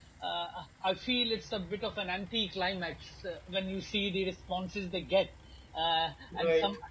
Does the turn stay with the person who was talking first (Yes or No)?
Yes